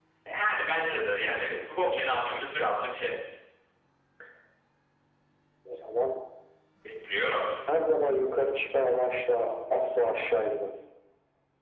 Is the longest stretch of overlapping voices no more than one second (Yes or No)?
Yes